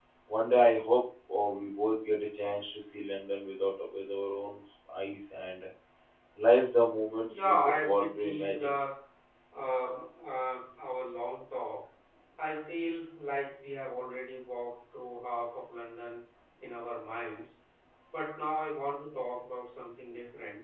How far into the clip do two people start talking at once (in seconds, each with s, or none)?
7.3 s